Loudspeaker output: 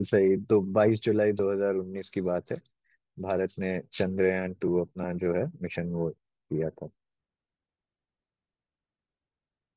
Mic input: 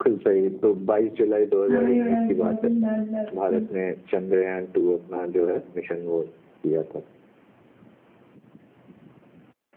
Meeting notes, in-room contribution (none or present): present